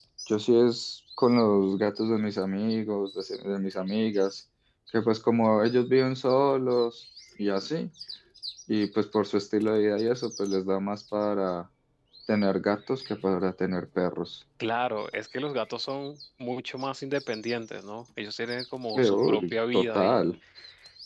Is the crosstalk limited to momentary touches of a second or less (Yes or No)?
No